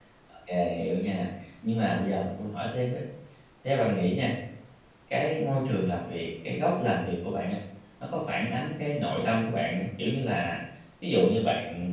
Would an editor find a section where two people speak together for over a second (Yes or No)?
No